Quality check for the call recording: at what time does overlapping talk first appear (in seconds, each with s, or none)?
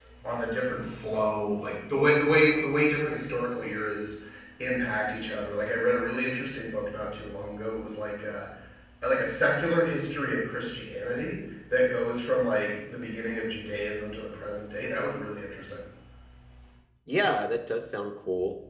none